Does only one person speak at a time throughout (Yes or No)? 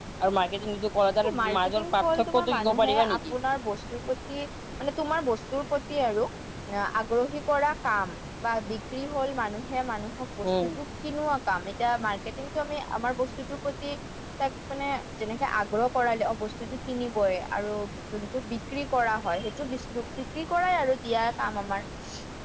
No